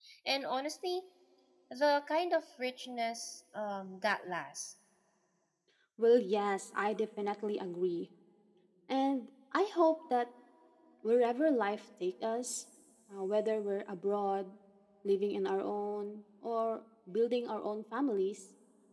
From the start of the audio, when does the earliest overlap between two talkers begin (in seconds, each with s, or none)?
none